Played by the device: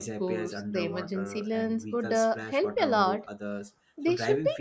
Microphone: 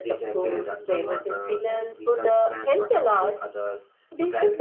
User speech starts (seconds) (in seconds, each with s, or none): none